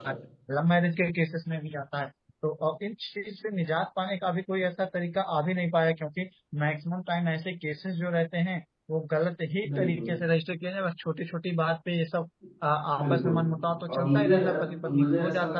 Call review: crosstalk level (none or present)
present